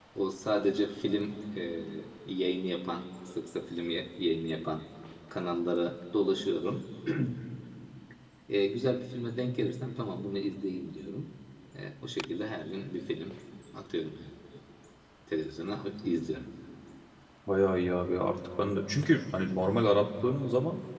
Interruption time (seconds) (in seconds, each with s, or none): none